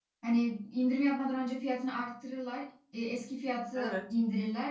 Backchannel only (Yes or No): Yes